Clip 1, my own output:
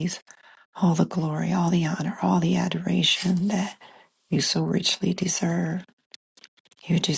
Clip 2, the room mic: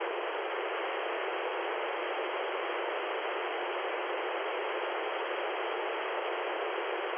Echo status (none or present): none